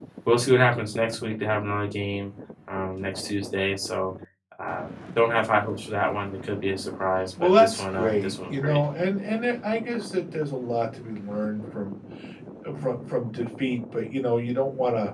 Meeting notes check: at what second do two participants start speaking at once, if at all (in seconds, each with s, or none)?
7.4 s